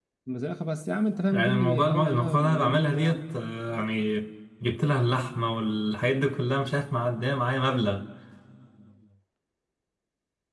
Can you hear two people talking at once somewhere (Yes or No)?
Yes